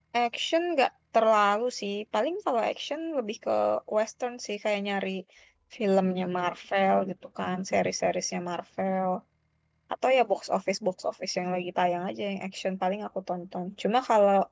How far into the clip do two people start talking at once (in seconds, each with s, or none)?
none